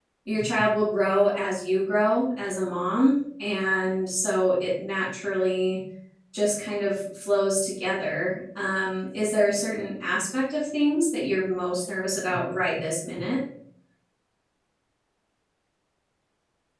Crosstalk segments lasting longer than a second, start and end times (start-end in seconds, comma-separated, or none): none